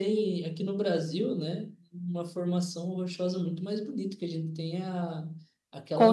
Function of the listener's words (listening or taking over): listening